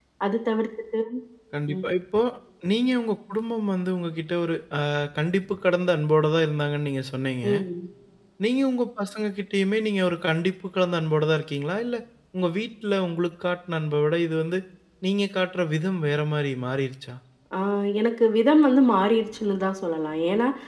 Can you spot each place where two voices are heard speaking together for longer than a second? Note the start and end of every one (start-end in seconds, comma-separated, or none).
none